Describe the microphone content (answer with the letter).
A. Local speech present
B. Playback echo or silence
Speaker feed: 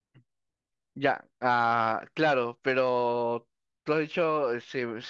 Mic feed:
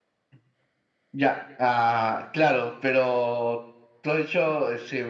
B